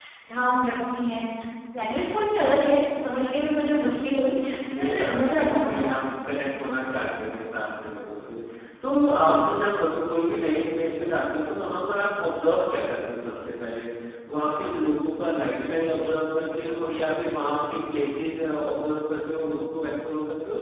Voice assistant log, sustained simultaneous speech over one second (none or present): present